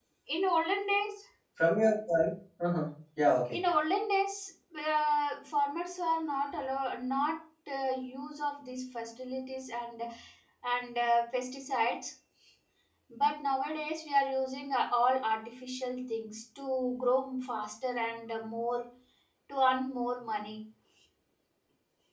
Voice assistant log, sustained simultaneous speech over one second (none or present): none